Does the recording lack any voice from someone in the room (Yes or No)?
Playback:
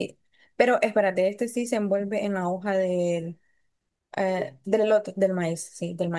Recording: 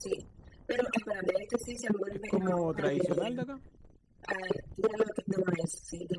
No